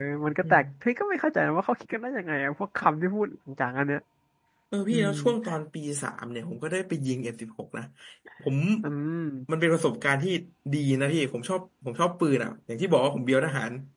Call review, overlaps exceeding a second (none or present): none